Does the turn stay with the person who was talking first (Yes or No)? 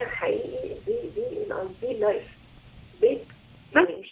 Yes